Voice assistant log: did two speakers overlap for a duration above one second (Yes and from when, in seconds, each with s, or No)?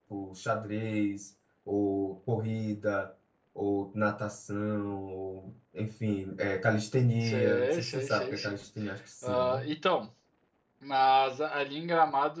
Yes, from 7.2 s